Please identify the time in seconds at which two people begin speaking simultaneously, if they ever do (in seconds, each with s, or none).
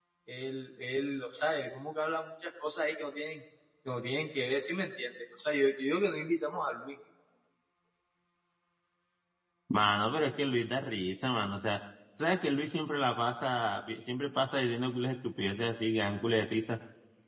none